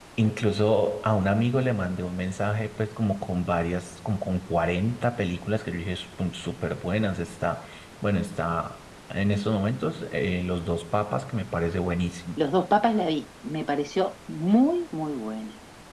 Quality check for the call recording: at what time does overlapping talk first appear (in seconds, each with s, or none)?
none